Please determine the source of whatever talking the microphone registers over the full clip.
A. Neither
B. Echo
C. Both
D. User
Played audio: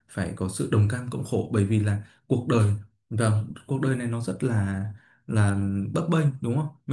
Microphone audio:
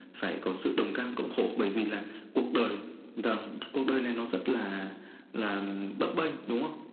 B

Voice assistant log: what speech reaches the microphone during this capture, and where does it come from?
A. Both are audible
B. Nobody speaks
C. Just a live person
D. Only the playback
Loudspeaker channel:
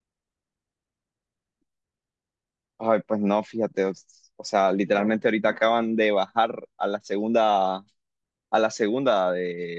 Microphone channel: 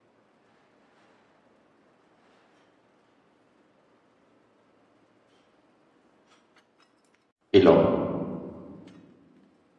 C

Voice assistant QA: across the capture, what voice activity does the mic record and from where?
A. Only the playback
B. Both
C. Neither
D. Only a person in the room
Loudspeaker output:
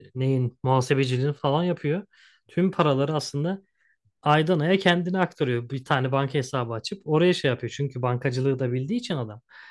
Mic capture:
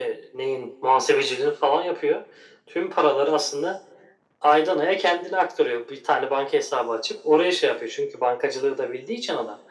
A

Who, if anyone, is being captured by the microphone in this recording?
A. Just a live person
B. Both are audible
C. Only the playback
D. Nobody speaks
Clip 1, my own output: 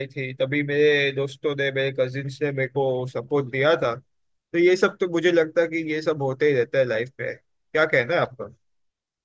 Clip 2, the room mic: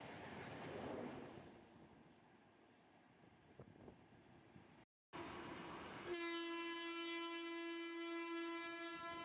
D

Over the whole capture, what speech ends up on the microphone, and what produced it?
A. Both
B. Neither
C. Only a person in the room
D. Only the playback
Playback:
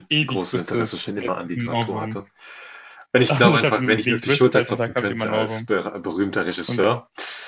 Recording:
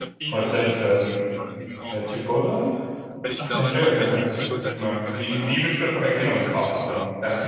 A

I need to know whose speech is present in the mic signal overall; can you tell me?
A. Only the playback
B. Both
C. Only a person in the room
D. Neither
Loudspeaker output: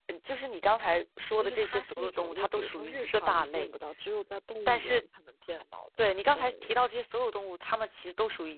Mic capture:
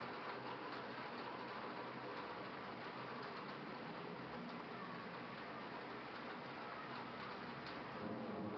D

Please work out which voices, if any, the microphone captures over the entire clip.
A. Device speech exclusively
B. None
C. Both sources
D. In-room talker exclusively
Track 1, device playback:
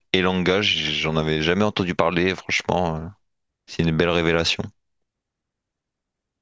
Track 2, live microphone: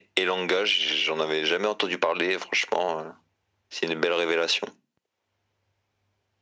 A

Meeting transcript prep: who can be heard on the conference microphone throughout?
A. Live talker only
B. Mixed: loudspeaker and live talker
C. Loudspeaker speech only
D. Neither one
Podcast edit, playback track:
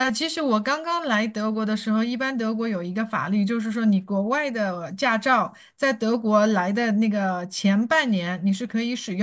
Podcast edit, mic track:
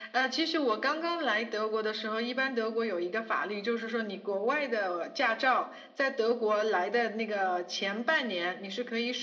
C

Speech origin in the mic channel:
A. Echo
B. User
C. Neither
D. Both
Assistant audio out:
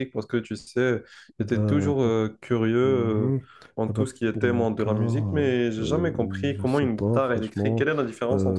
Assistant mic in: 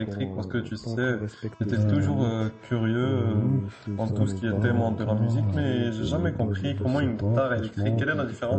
D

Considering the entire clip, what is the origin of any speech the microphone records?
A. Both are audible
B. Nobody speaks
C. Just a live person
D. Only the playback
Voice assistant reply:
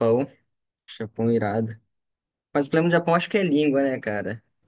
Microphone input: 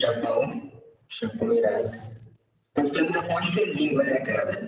D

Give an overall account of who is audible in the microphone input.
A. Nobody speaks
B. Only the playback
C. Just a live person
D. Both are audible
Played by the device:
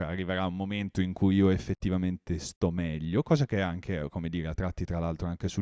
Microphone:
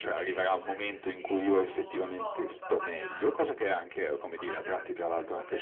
D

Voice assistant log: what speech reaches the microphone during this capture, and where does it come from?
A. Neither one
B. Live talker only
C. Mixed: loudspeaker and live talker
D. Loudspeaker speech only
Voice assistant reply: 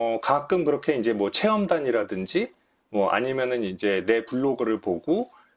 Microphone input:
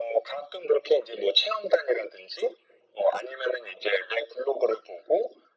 D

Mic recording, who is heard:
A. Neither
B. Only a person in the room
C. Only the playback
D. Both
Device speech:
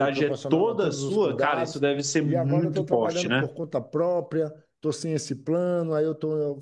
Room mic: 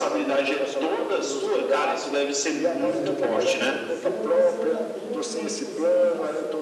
D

